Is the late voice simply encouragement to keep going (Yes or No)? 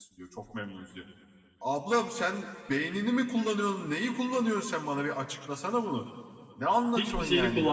No